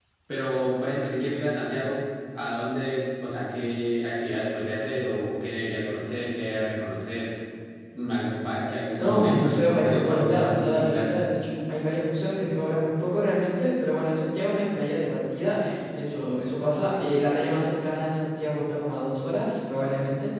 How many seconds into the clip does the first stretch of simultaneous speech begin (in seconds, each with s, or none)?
9.0 s